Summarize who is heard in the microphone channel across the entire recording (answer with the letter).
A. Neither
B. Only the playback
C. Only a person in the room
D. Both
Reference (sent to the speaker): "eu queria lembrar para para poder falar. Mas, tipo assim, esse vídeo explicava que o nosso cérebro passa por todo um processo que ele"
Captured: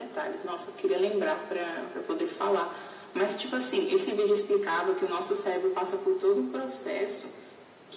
B